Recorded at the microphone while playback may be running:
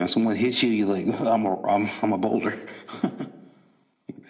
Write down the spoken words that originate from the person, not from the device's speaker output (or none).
none